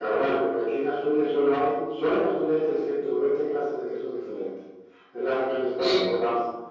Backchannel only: Yes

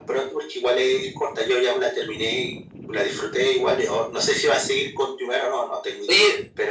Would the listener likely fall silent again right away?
No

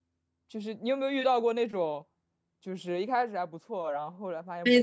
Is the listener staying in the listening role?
No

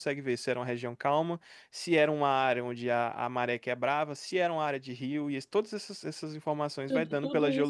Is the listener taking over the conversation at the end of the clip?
Yes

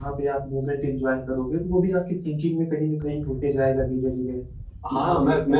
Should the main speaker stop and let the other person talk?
Yes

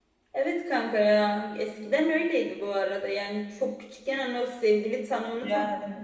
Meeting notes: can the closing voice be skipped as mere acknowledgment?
Yes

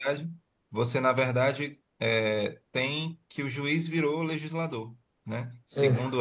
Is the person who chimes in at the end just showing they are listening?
Yes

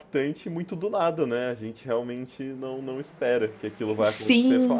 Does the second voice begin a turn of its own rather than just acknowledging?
No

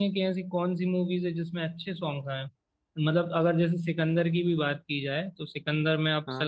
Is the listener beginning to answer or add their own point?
No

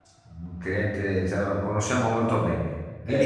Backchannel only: No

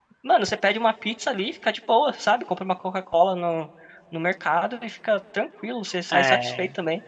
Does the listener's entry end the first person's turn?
Yes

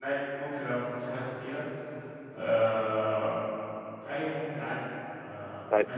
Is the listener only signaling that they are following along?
No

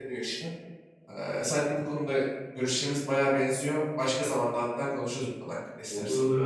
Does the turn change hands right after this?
Yes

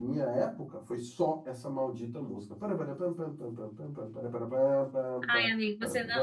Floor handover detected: Yes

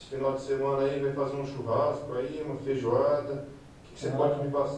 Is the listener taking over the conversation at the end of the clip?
No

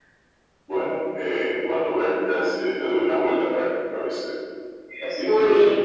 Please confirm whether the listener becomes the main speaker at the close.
No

